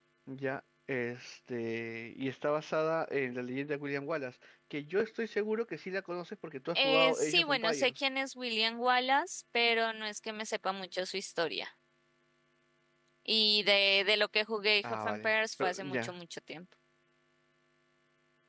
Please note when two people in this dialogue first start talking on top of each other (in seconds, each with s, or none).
6.8 s